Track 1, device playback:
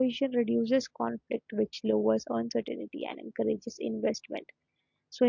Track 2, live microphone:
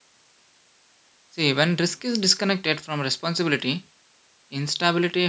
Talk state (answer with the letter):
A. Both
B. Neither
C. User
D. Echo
C